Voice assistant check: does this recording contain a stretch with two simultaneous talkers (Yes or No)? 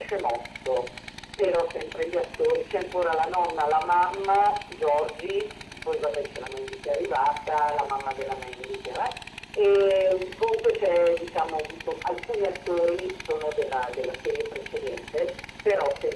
No